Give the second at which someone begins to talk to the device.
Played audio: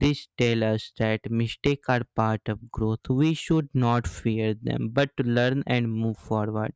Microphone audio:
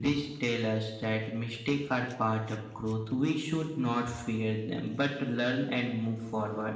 none

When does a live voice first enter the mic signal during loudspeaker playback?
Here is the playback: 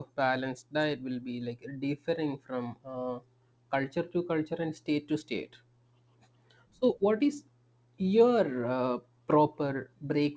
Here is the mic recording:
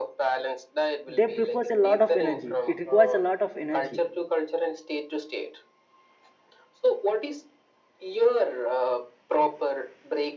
1 s

